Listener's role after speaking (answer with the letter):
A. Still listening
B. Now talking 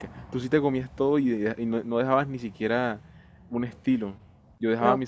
B